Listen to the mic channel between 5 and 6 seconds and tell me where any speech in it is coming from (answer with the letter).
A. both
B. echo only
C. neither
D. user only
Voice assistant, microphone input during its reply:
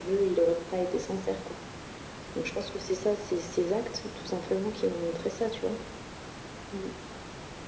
B